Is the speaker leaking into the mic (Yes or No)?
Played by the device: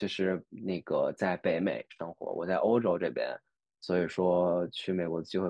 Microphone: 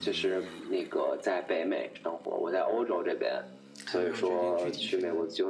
Yes